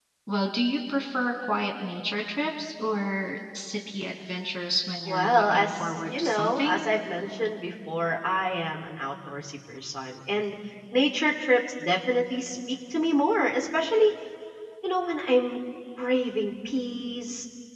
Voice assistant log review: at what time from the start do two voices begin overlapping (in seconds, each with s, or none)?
5.0 s